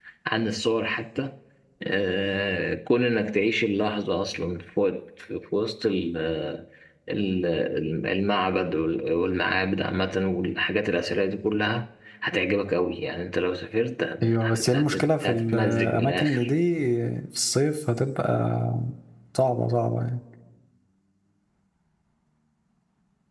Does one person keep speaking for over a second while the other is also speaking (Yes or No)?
Yes